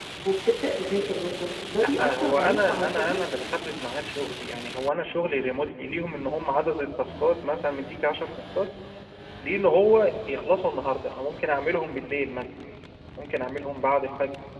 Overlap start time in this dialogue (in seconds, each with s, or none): 2.0 s